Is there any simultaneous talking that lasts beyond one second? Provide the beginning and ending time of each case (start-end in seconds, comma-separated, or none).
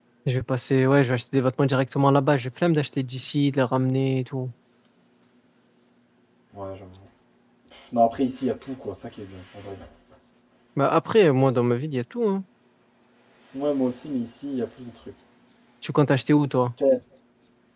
none